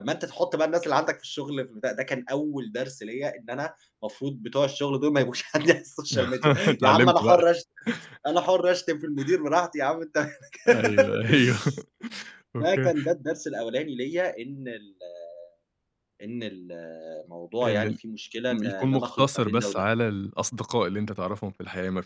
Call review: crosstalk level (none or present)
present